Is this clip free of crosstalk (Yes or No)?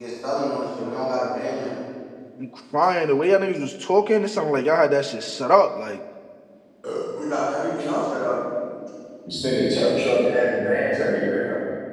Yes